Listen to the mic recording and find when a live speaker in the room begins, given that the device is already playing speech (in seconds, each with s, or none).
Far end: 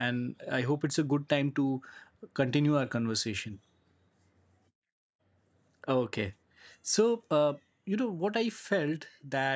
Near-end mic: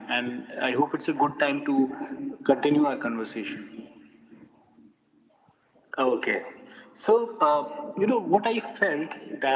none